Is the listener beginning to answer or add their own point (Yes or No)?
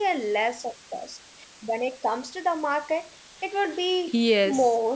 Yes